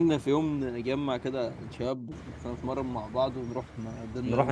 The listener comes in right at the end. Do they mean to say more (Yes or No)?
Yes